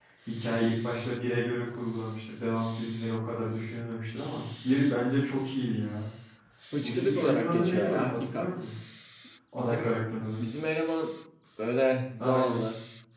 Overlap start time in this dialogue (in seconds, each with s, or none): 6.8 s